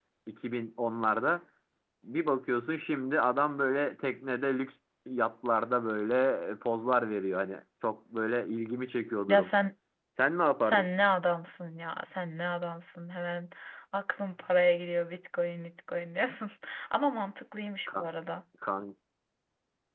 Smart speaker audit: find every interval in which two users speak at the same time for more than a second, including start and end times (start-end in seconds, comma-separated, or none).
none